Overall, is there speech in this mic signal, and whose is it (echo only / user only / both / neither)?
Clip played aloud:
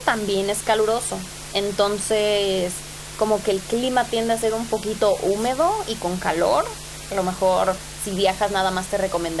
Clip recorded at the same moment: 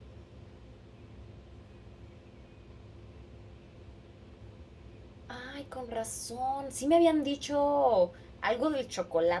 user only